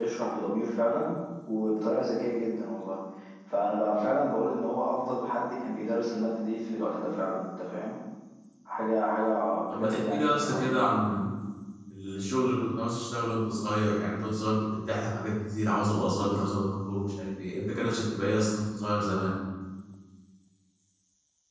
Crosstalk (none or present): present